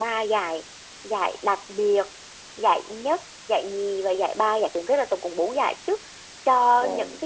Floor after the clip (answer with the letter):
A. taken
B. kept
B